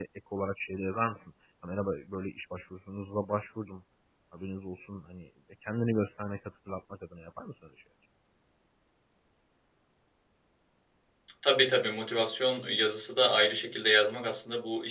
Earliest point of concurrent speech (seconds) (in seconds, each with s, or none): none